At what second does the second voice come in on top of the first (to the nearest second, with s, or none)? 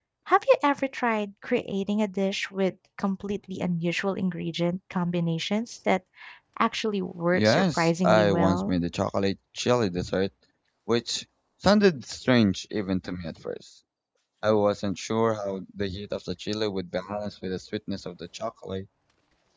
7 s